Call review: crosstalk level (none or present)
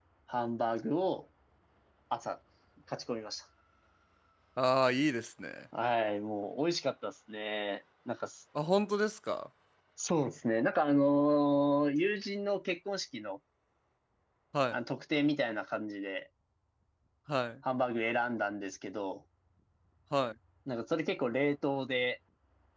none